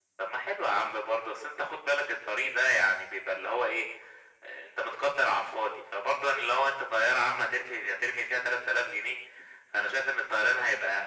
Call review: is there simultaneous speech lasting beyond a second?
No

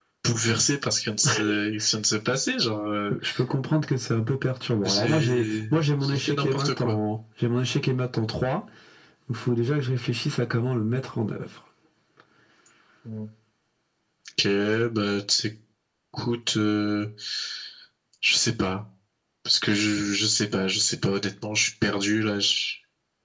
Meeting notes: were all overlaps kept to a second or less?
No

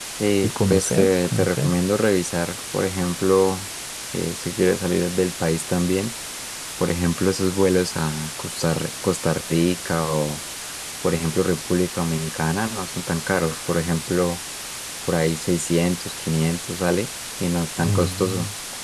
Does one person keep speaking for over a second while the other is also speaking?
Yes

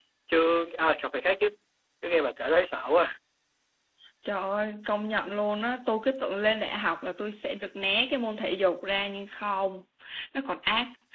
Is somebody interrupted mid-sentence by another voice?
No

